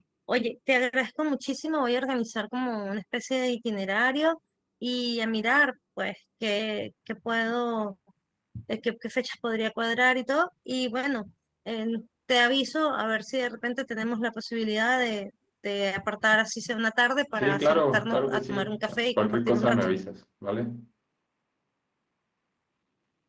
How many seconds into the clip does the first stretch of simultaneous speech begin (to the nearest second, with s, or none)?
17 s